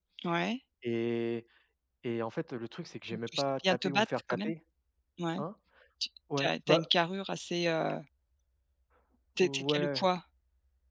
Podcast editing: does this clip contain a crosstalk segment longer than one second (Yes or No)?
Yes